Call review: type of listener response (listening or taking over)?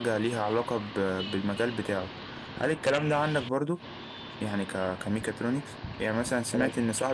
listening